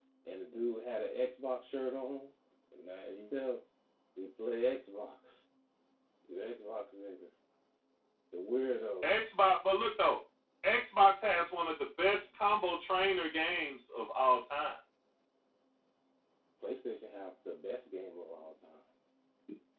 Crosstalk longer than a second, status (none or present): none